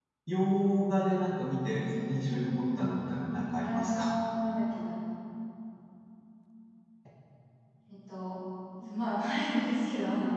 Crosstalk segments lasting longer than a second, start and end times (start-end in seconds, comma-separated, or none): 1.8-4.1